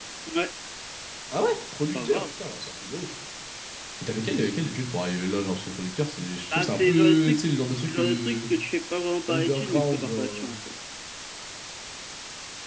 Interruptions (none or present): present